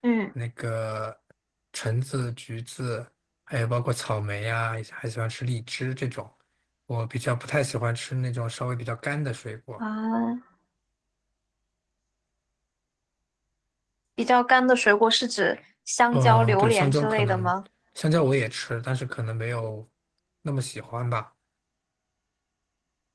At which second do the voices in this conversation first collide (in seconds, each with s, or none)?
16.1 s